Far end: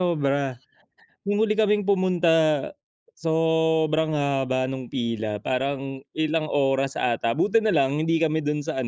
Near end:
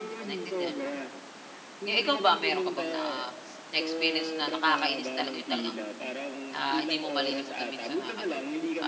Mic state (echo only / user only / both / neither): both